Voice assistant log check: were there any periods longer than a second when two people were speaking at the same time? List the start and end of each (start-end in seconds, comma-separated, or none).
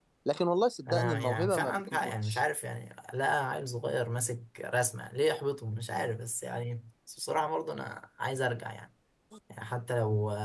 0.9-2.4